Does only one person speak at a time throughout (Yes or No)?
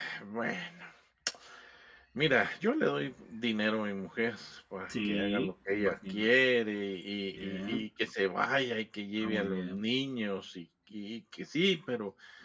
No